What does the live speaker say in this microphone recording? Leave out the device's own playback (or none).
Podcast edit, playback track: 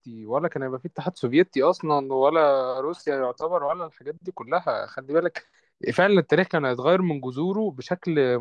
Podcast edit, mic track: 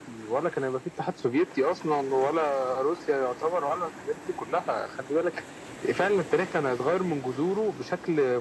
none